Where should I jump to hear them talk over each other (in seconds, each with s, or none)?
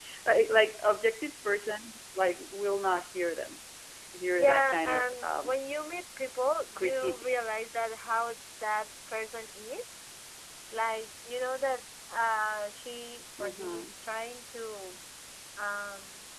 4.3 s